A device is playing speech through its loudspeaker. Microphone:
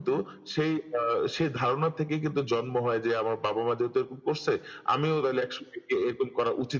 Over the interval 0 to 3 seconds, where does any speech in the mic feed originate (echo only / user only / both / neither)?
echo only